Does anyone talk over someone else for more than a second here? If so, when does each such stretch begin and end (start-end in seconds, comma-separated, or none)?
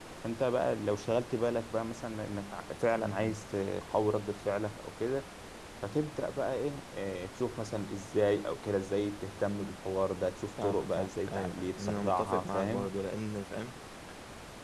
10.6-12.9